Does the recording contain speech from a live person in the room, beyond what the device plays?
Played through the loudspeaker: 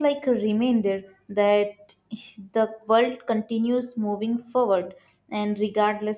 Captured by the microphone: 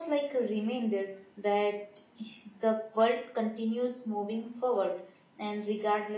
No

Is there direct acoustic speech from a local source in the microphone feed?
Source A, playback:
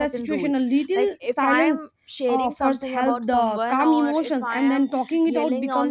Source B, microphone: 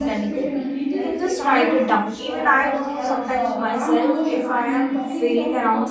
Yes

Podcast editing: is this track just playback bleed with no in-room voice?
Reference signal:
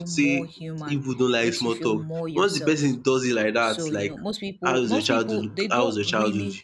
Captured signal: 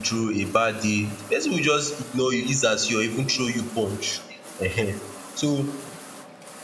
No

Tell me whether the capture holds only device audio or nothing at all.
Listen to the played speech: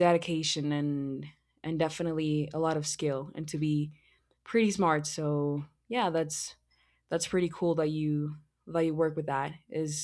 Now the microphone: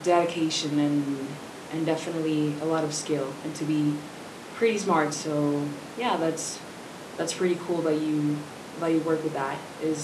Yes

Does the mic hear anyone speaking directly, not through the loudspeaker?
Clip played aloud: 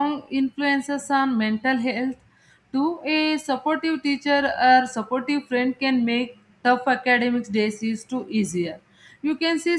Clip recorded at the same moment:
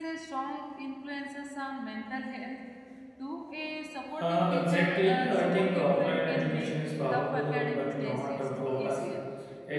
Yes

